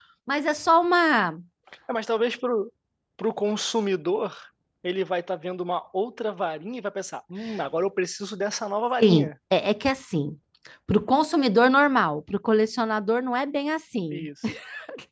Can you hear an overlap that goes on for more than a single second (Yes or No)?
No